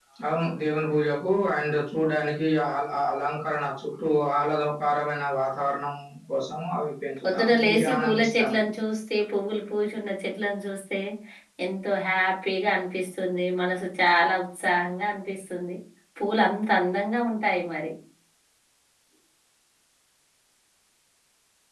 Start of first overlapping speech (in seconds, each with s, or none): 7.2 s